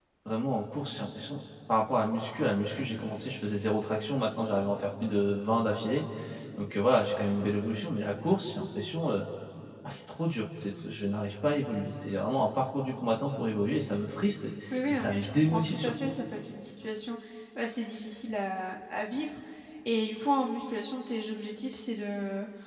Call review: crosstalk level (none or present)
present